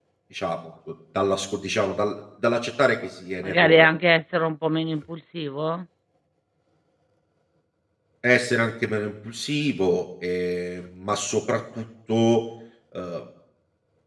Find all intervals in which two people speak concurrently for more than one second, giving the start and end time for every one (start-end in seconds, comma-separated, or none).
none